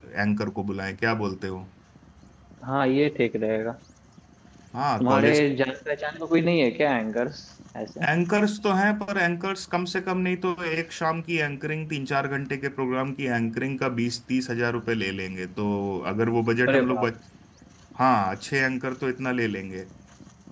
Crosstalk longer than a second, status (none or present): none